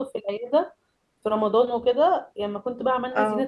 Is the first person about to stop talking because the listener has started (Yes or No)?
No